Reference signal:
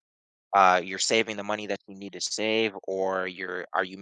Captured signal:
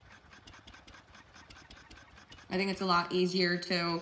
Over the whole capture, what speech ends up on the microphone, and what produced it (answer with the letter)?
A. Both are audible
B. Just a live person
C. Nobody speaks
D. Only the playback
B